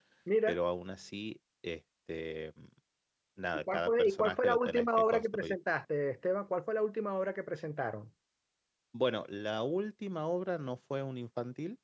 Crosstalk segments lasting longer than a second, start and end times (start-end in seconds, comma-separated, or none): 3.7-5.5